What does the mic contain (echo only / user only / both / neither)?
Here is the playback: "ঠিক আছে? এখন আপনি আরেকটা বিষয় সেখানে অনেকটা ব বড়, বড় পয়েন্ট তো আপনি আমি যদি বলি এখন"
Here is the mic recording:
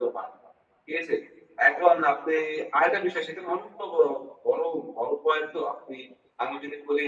echo only